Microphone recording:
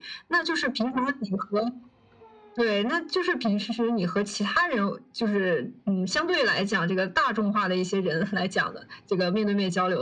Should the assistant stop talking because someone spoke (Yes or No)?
No